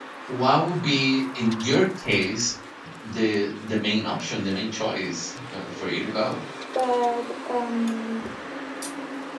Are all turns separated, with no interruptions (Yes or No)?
Yes